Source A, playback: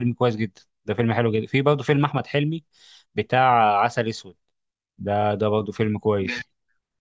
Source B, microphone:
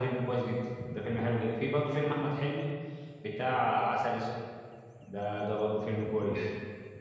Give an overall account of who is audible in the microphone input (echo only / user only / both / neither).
echo only